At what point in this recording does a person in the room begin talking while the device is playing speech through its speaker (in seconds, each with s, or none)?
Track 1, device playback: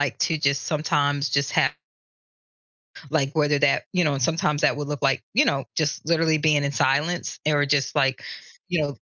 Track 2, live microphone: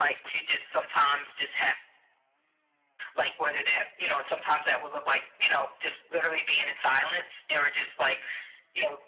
none